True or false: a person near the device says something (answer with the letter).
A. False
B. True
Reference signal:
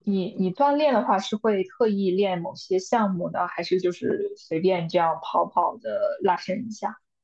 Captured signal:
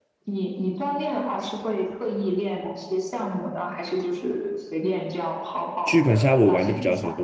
B